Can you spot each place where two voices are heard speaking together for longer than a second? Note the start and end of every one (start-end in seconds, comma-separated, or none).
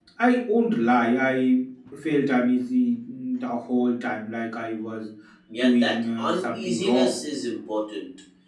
5.6-7.1